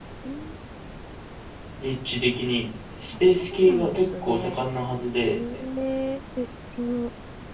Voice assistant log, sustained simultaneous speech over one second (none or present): present